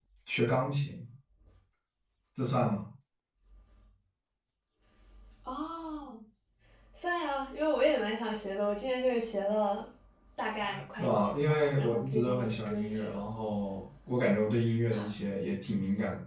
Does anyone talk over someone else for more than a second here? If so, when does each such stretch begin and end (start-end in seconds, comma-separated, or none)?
11.0-13.2